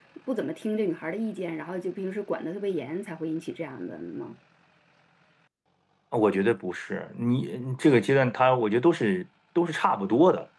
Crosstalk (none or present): none